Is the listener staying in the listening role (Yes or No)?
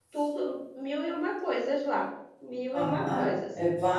No